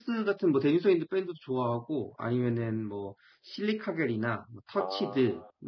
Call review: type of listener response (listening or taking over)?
listening